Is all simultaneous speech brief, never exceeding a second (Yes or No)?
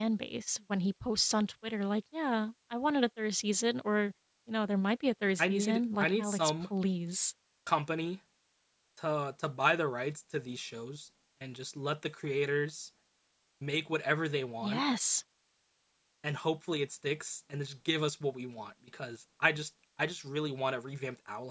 No